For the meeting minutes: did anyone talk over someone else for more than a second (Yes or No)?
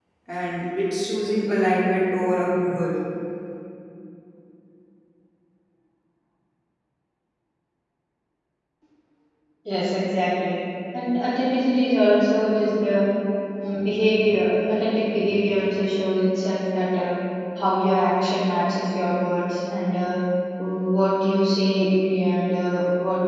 No